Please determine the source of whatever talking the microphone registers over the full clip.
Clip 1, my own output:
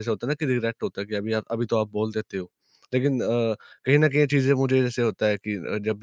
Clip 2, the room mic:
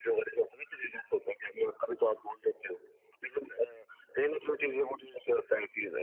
echo only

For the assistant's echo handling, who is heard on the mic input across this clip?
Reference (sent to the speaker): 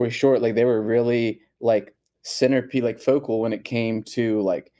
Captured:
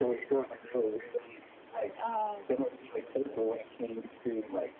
both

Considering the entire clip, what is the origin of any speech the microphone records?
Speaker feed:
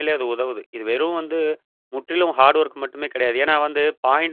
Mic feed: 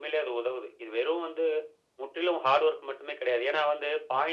echo only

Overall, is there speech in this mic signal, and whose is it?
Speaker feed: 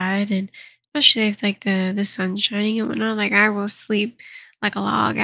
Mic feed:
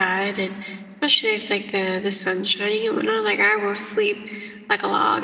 echo only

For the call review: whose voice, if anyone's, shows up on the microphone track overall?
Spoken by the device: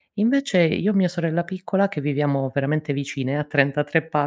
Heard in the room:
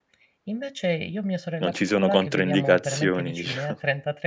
both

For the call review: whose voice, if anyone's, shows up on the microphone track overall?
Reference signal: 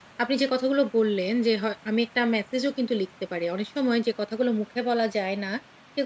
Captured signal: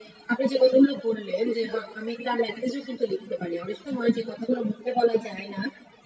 echo only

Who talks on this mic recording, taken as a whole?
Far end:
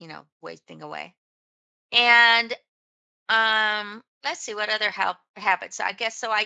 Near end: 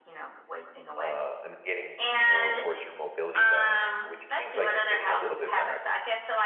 both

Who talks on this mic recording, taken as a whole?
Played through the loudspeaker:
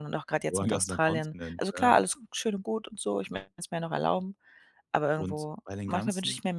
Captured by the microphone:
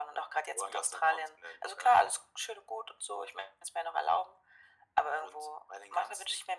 echo only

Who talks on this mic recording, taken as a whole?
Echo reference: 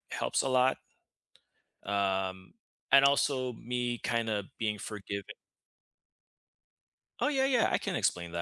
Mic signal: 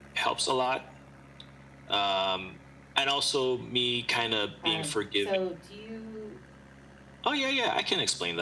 both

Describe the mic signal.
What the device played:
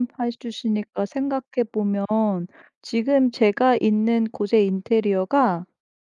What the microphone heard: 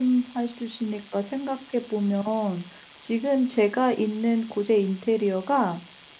echo only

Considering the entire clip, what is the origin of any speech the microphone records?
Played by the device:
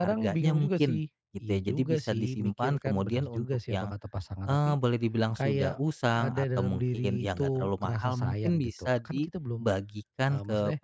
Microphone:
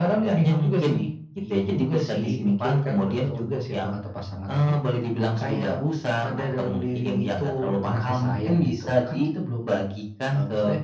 echo only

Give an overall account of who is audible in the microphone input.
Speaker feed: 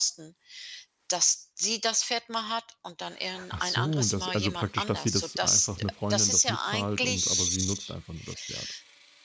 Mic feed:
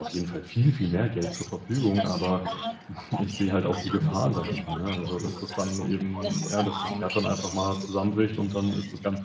both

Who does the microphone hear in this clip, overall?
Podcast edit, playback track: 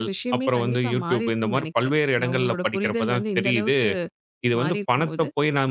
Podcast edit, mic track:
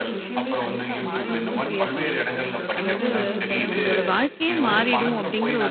both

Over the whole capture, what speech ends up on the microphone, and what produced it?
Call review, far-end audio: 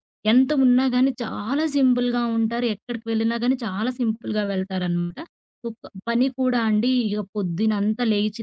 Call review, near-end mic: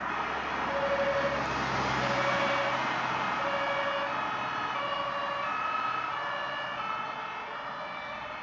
neither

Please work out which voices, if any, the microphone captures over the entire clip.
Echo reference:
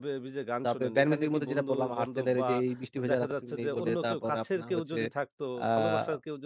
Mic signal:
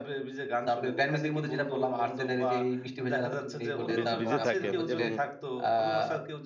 both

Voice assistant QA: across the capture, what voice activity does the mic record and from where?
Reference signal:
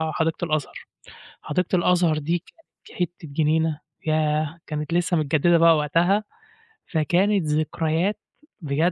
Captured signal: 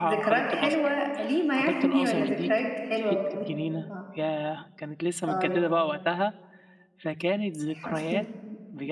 both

